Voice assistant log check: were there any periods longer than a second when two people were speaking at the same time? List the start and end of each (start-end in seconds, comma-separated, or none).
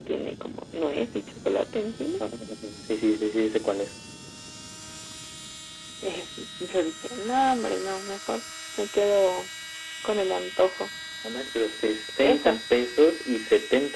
none